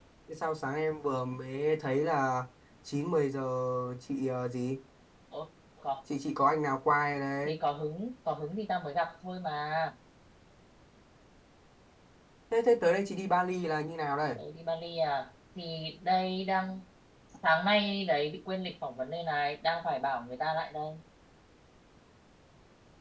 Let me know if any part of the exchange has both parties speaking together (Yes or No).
No